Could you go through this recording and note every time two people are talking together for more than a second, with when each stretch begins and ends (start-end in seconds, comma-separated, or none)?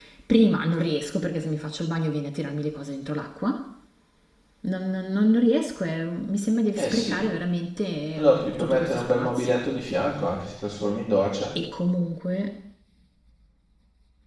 8.2-9.7